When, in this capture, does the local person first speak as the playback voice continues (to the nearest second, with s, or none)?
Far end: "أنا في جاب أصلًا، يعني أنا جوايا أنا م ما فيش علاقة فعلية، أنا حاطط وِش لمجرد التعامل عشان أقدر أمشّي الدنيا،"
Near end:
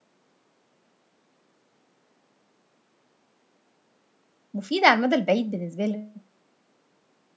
5 s